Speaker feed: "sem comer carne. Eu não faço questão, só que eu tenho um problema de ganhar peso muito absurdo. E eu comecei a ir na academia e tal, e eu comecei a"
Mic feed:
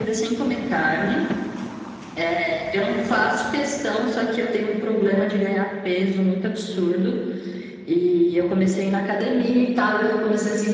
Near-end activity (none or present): none